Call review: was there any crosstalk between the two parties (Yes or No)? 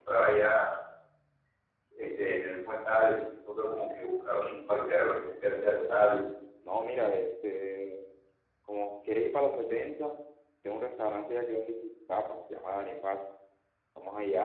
Yes